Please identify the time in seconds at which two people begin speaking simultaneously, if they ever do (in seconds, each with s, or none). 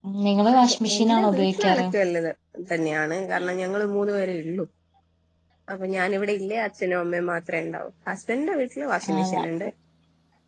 0.6 s